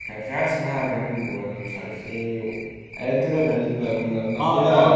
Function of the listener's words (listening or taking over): taking over